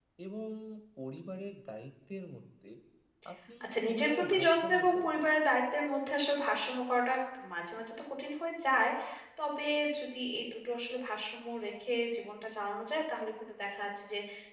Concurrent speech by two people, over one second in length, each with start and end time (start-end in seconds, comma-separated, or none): 3.6-5.3